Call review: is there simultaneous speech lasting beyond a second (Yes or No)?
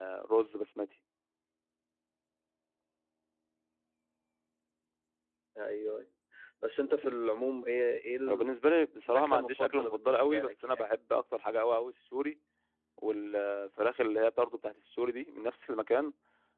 Yes